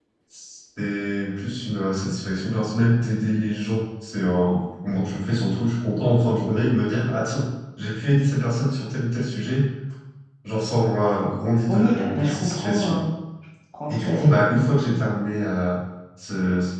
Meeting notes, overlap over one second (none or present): present